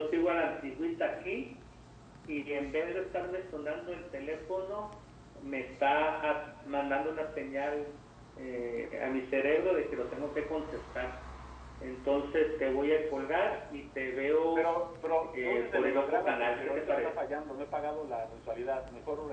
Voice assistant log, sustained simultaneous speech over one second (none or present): present